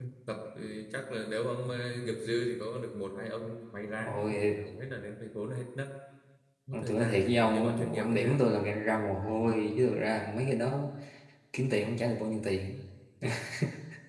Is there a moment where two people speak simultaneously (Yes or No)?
Yes